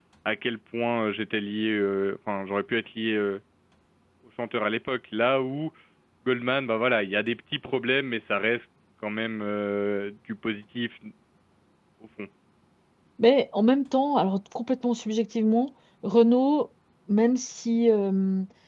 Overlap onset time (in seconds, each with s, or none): none